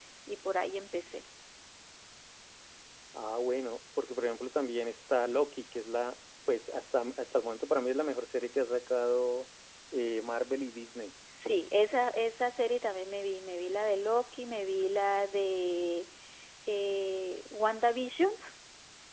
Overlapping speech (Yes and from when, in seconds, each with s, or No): No